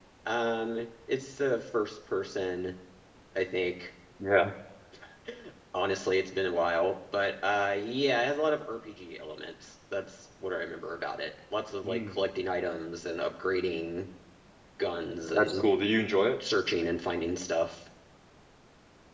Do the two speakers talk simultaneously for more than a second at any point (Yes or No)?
No